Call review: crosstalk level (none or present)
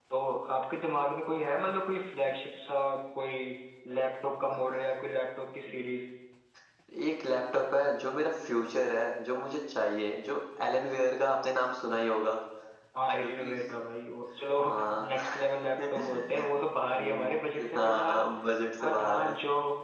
present